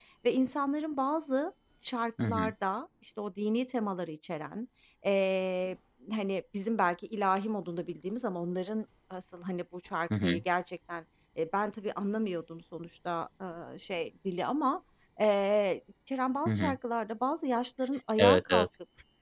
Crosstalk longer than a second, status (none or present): none